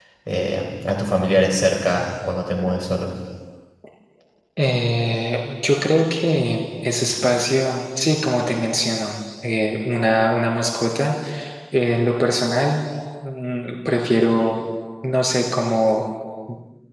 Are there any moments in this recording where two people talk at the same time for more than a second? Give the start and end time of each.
none

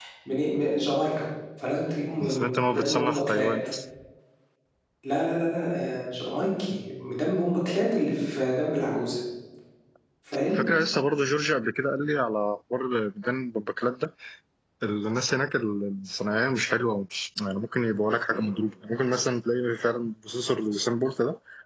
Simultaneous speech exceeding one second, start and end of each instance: 2.2-3.5

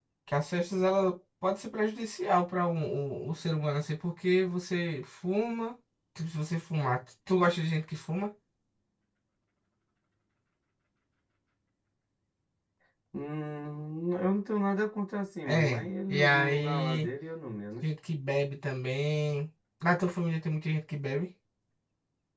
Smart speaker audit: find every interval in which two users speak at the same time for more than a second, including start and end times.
15.5-17.1

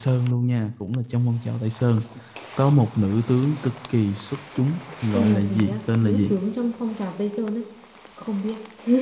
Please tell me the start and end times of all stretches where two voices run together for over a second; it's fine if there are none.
5.1-6.3

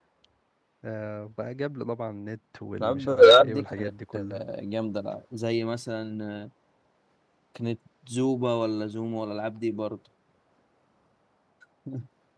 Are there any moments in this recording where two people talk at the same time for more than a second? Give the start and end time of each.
2.8-4.4

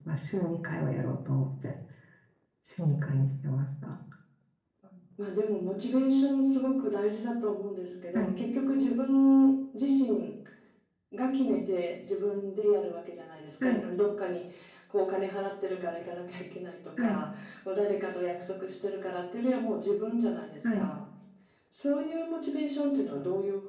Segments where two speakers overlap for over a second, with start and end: none

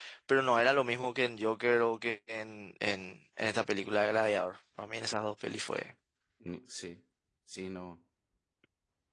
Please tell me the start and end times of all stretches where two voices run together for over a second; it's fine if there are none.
none

